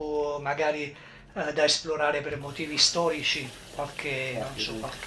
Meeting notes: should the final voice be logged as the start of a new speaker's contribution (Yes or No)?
No